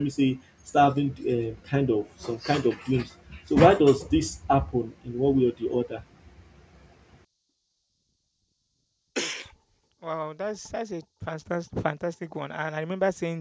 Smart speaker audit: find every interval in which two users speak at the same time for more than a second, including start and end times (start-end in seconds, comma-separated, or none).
none